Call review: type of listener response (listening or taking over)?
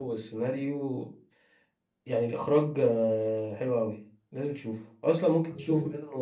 listening